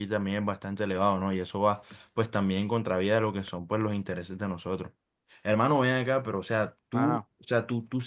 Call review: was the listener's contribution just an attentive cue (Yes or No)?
Yes